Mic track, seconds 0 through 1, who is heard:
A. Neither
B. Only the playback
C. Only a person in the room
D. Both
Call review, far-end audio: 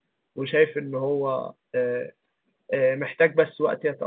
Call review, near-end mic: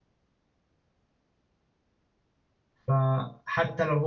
A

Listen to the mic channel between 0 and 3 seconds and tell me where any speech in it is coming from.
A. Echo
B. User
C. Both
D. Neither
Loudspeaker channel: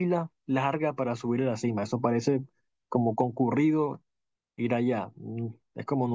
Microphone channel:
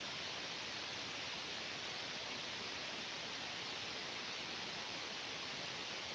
D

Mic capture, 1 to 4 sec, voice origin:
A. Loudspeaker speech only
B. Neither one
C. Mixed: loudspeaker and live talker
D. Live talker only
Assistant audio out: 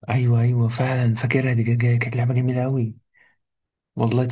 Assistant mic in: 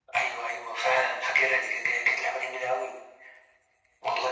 A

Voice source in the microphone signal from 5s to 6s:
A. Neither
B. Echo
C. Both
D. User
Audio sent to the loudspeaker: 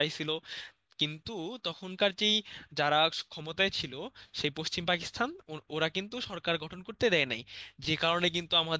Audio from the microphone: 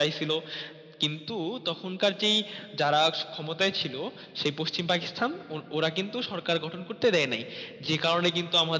B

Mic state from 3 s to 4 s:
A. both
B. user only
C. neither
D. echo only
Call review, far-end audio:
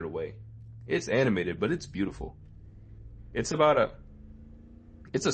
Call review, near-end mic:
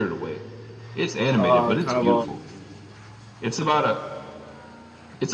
D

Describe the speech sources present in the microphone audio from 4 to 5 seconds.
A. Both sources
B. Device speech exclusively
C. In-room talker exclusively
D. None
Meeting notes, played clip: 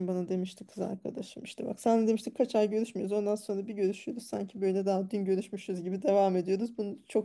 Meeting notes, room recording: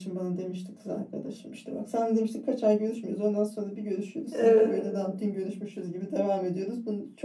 A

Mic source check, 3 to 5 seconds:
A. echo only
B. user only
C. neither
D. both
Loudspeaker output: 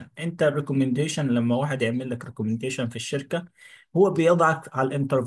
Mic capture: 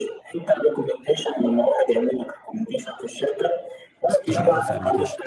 D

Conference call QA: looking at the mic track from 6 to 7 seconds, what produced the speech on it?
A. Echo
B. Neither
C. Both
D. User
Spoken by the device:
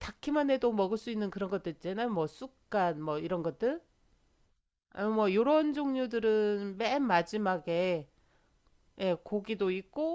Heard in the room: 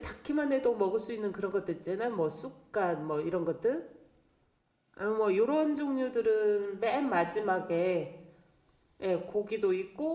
A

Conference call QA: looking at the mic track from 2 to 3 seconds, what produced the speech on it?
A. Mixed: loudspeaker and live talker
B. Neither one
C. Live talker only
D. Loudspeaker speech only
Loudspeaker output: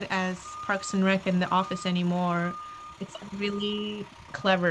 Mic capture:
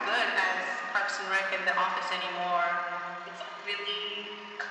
D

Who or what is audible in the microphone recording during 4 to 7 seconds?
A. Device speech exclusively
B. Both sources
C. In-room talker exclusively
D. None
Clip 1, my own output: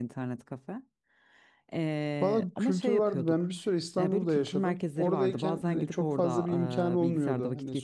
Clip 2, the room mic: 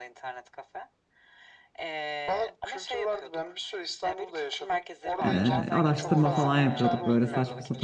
B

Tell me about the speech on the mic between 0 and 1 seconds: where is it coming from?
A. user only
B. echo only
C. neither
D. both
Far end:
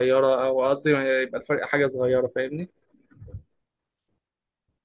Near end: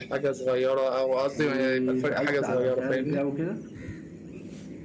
B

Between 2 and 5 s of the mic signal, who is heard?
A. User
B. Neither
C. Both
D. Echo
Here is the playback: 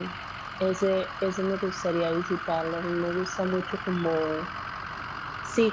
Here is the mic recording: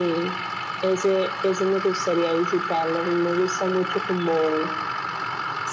D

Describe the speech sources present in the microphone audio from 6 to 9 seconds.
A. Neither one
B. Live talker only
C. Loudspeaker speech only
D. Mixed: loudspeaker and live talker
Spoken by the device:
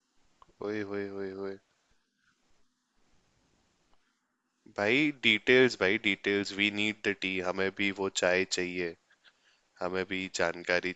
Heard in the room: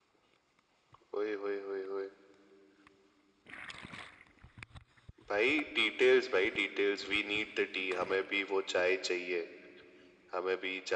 C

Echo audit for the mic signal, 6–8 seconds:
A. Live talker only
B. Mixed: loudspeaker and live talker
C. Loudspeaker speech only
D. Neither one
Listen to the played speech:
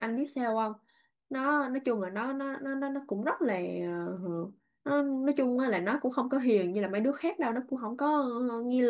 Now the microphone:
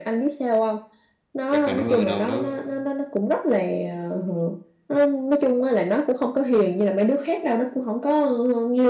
C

